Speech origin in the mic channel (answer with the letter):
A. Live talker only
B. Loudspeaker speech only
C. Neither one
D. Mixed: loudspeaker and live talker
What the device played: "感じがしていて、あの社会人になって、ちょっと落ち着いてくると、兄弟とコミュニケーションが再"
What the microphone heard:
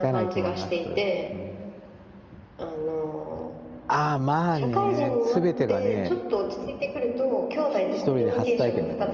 D